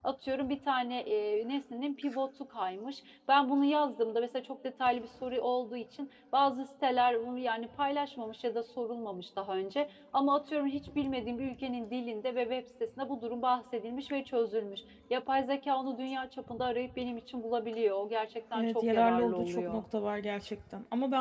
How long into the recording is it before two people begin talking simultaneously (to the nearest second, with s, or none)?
19 s